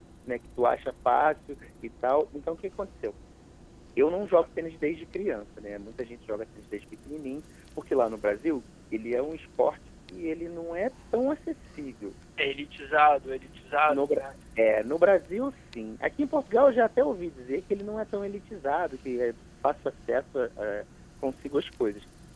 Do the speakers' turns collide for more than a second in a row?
No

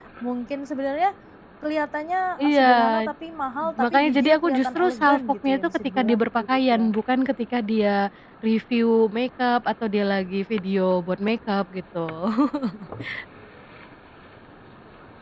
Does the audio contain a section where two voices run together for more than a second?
Yes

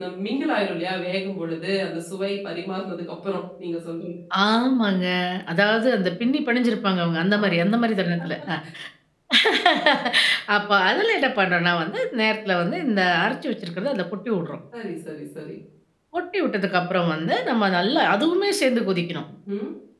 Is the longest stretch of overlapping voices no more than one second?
Yes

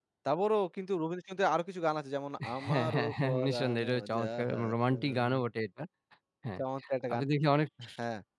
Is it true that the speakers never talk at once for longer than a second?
No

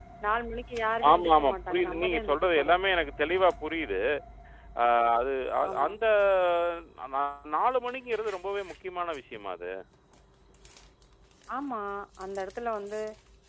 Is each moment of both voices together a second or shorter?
No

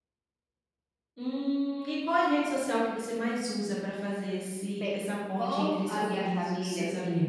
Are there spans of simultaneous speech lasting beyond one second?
Yes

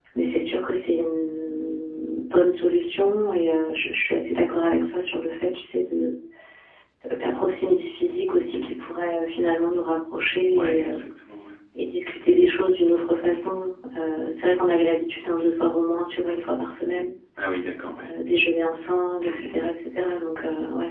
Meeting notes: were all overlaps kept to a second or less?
Yes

